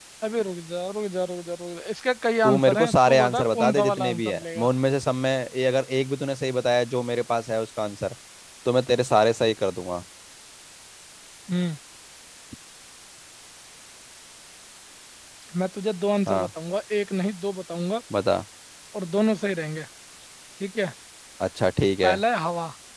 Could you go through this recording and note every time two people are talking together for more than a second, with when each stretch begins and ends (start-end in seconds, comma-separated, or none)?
2.4-4.7